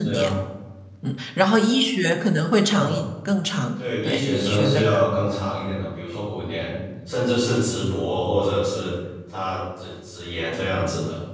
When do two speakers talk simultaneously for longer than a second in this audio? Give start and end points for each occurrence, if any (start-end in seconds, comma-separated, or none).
3.8-5.0